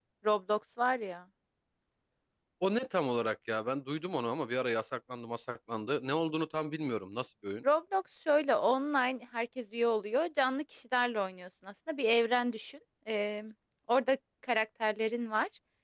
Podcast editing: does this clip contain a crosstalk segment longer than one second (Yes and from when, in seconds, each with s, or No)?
No